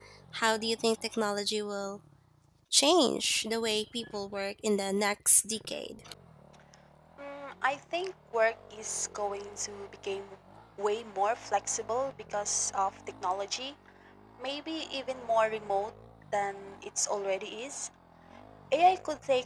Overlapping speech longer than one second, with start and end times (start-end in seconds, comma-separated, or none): none